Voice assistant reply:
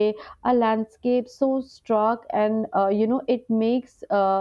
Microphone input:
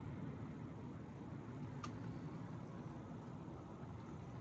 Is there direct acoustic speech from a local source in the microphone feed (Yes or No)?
No